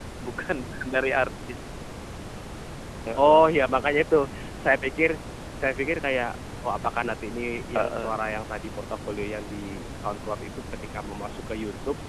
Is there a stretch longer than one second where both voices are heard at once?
No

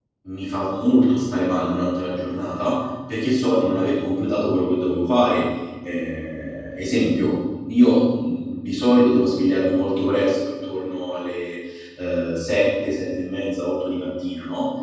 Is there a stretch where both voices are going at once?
No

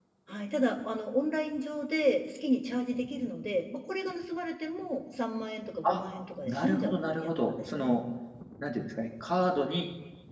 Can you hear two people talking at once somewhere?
Yes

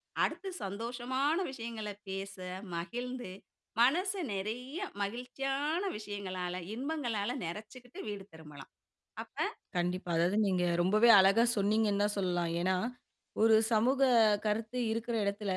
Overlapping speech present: No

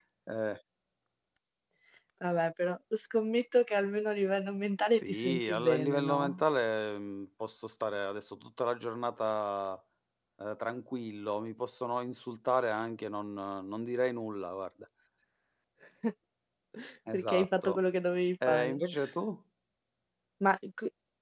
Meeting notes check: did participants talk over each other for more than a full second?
Yes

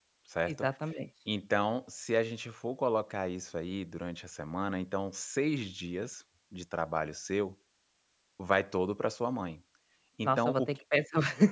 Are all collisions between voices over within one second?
Yes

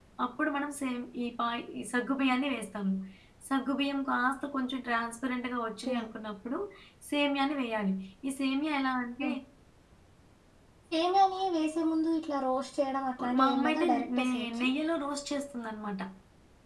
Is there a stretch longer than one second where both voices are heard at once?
Yes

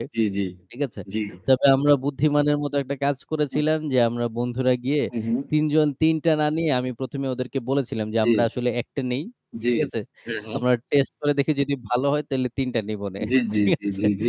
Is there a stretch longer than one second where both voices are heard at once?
No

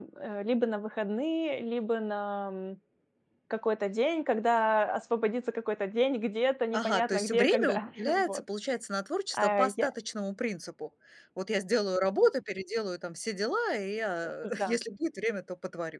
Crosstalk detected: Yes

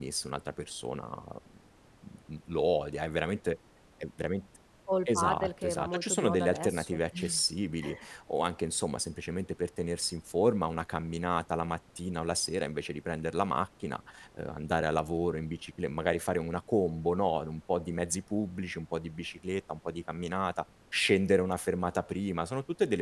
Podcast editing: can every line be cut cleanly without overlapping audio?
No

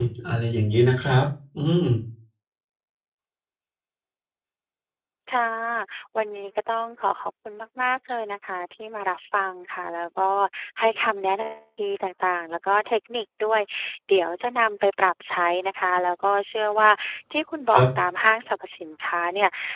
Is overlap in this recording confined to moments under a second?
Yes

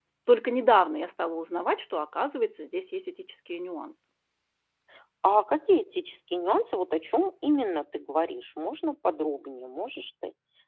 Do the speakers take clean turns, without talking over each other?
Yes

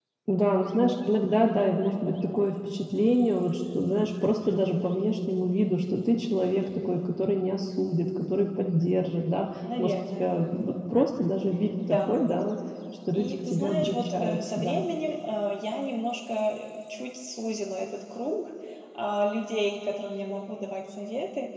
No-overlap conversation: No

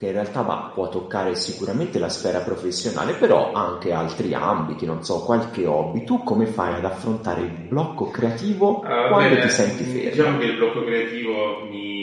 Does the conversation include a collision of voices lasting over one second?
Yes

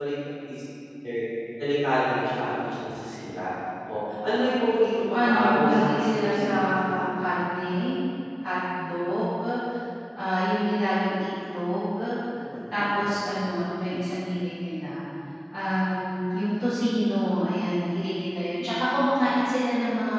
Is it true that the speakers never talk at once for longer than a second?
No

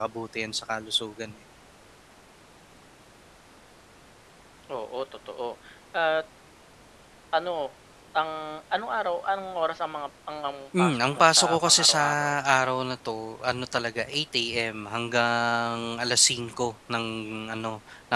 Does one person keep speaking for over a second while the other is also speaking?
Yes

